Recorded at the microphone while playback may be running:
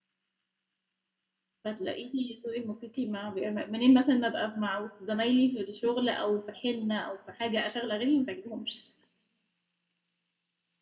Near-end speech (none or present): present